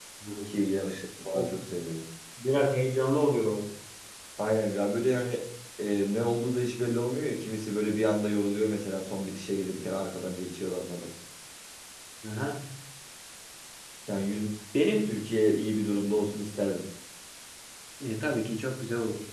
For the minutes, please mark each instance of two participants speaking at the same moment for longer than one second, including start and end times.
none

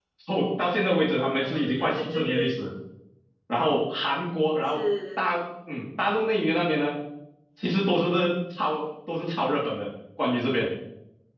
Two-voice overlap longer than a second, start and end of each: 1.2-2.5

